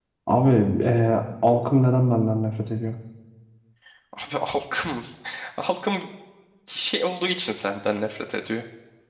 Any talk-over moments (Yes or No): No